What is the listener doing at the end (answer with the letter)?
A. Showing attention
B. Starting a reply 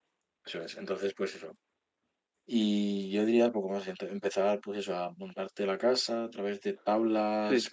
B